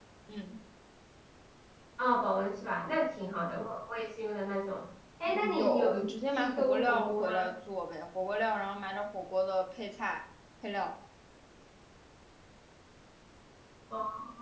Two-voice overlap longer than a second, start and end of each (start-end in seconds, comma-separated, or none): 5.3-7.5